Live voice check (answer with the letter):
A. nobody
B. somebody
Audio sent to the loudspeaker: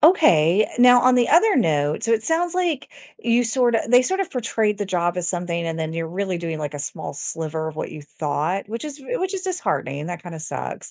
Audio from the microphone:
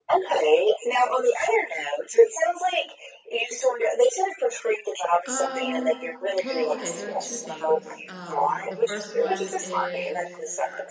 B